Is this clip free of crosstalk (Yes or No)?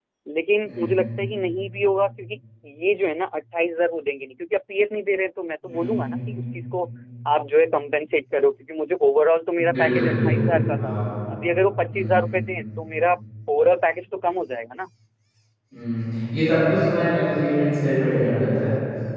No